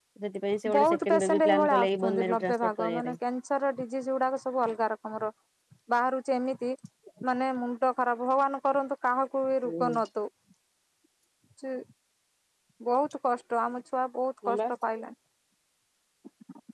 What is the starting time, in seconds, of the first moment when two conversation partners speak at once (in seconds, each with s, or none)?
0.8 s